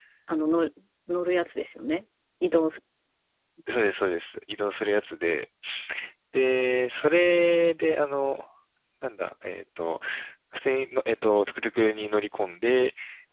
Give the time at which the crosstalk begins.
none

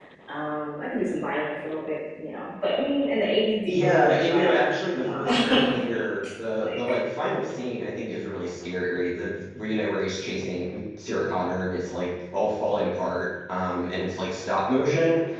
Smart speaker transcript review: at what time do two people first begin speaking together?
4 s

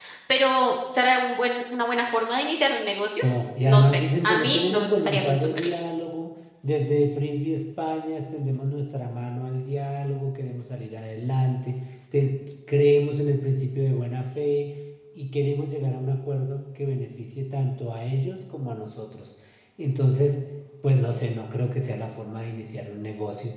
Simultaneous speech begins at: 4 s

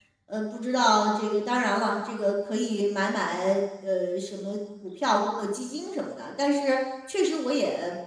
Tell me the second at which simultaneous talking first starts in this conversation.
none

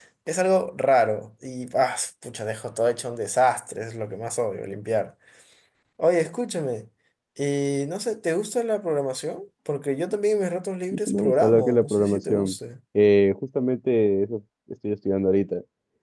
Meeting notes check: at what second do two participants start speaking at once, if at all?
11 s

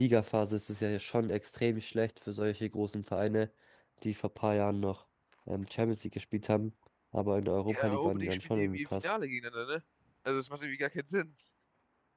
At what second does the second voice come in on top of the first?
8 s

